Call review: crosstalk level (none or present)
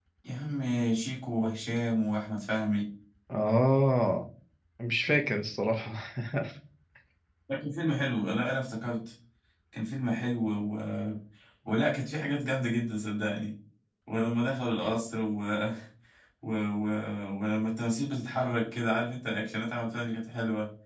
none